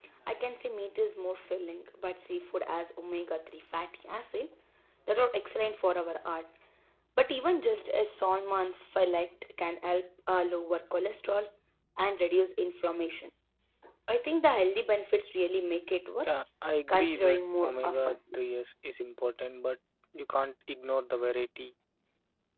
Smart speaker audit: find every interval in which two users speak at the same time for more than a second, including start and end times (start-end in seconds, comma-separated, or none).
16.9-18.2